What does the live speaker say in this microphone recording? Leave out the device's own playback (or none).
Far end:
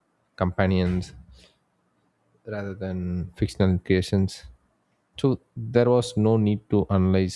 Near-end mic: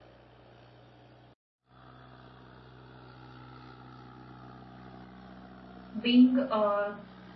being a